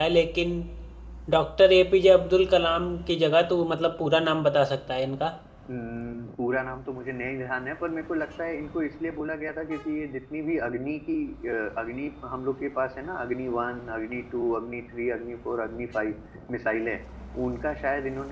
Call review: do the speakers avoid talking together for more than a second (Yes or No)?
Yes